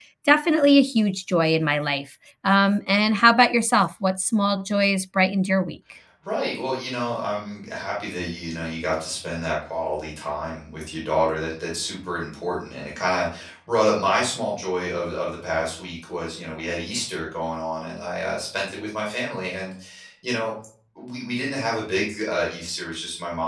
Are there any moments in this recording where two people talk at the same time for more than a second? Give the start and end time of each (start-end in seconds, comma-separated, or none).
none